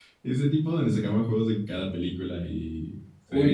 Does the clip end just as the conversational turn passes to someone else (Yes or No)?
Yes